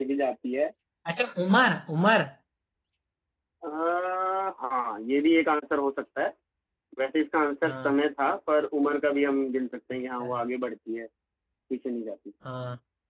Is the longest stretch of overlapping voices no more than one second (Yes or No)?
Yes